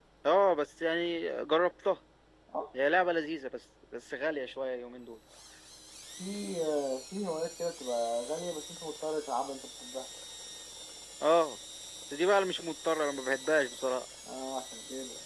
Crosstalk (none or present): none